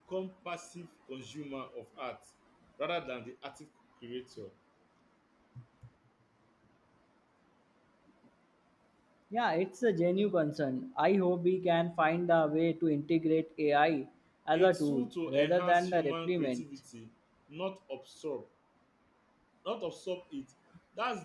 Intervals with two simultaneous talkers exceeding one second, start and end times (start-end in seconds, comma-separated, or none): 14.5-16.6